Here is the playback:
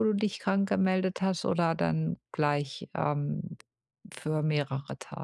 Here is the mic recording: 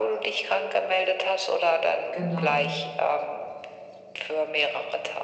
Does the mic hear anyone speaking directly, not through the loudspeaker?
Yes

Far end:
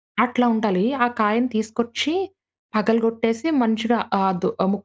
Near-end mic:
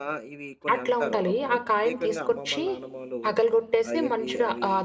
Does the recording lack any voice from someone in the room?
No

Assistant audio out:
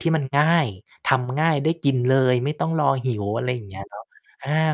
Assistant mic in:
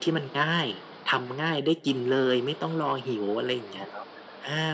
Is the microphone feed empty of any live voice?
Yes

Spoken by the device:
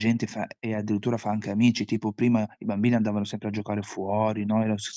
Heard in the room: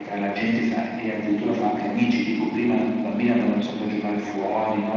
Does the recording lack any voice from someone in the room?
Yes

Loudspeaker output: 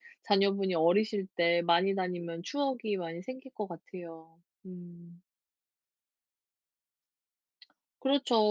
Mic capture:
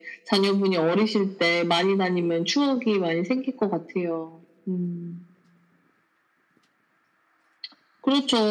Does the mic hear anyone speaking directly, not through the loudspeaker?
No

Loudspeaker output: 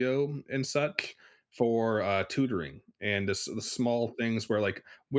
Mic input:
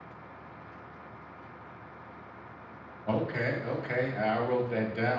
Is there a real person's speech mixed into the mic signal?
Yes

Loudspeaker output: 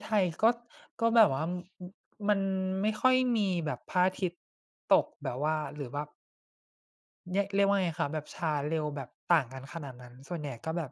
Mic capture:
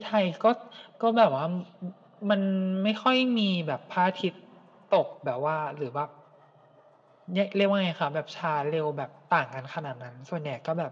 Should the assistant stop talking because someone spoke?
No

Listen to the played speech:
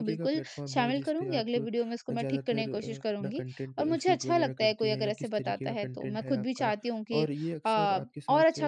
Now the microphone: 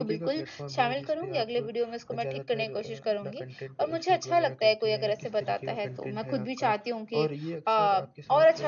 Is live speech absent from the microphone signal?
Yes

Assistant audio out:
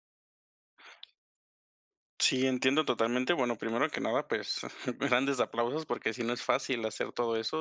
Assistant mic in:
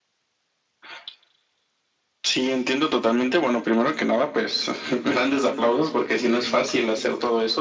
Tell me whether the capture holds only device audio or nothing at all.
Yes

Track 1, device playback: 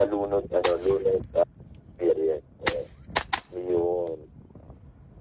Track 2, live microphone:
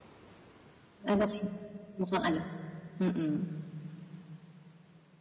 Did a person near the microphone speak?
Yes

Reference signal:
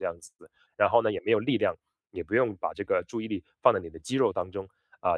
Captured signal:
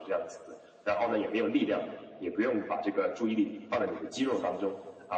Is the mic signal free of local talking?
Yes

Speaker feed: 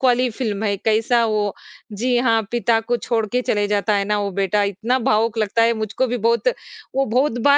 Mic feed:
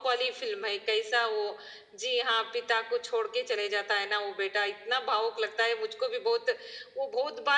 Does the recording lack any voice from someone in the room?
Yes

